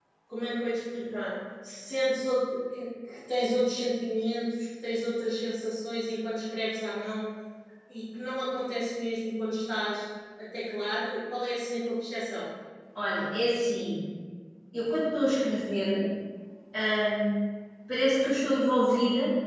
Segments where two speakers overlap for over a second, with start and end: none

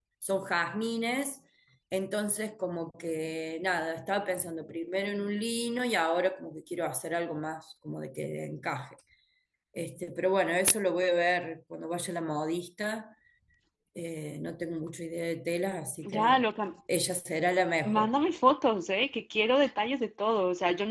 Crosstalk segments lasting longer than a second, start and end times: none

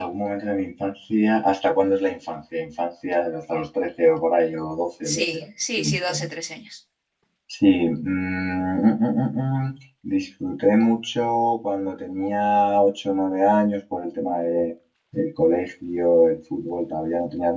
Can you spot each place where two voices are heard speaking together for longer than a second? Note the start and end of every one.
5.0-6.3

